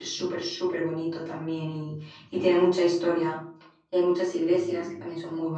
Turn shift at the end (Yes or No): No